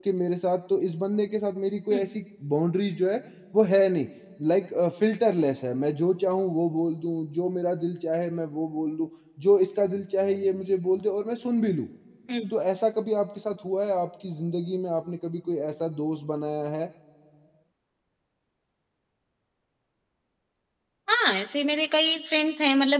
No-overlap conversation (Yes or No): Yes